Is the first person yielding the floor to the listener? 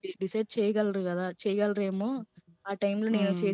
Yes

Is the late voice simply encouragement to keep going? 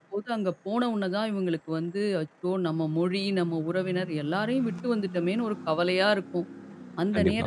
Yes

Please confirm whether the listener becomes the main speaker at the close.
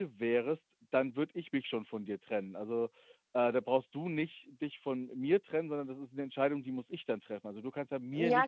Yes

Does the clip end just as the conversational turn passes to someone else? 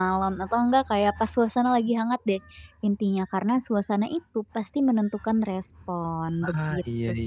Yes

